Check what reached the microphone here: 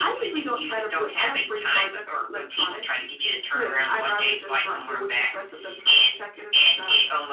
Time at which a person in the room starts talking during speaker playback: none

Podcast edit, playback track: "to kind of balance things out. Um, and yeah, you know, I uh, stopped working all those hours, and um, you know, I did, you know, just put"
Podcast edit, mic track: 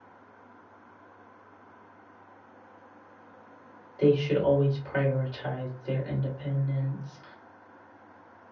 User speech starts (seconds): 4.0 s

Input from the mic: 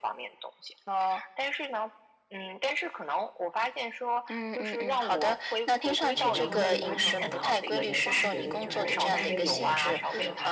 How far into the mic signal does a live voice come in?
6.1 s

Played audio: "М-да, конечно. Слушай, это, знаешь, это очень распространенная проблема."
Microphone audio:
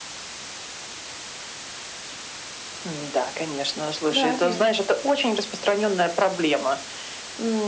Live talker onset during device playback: 4.2 s

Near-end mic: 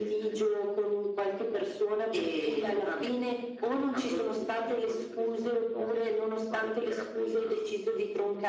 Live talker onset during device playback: none

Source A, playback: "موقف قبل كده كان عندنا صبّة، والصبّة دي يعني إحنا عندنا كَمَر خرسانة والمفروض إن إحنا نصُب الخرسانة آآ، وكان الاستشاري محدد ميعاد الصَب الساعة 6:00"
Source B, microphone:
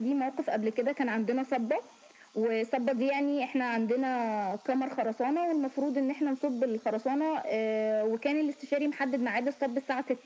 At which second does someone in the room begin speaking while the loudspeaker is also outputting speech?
none

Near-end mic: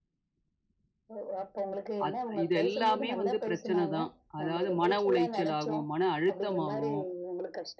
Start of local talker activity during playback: 2.1 s

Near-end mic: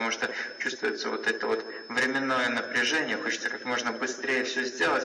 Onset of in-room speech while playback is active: none

